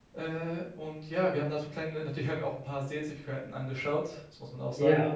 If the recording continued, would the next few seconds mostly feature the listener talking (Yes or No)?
No